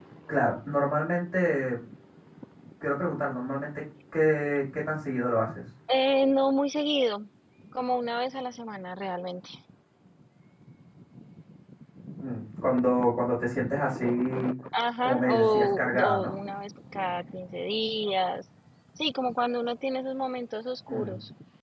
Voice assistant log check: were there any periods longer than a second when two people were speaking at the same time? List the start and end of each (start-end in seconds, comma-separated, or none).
15.0-16.3